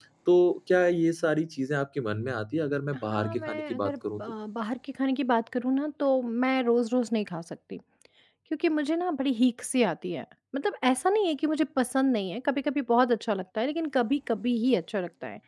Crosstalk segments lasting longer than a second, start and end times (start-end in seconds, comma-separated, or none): 3.1-4.3